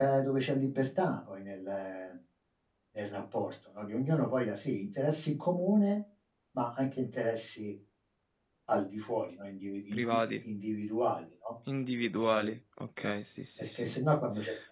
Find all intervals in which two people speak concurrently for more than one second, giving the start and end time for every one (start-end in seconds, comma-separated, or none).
none